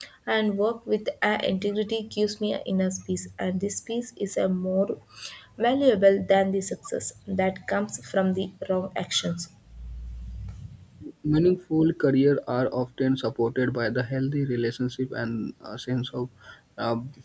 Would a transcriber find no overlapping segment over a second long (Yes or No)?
Yes